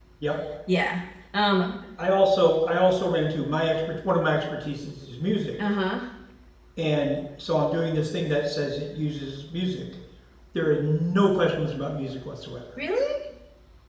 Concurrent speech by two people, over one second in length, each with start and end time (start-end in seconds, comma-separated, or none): none